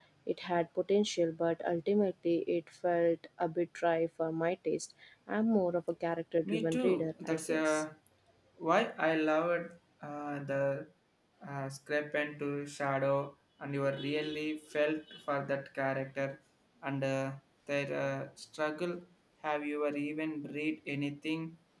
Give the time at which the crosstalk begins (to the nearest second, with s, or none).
7 s